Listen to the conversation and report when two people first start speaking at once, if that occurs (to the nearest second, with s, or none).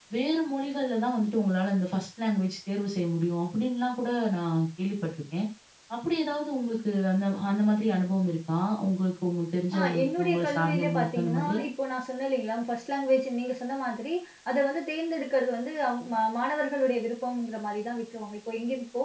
10 s